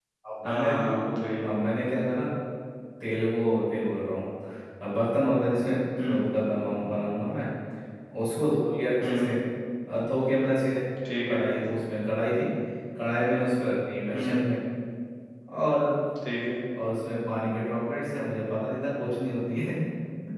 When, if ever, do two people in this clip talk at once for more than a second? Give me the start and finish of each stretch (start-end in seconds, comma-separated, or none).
none